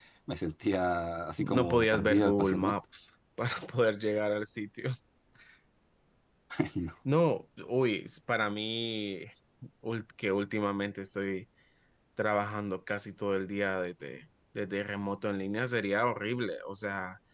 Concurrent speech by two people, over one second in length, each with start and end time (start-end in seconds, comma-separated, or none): 1.4-2.7